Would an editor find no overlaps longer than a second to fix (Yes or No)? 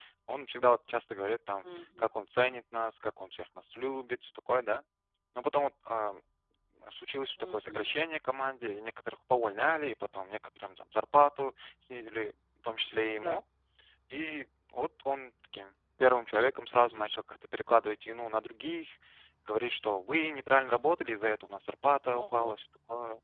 Yes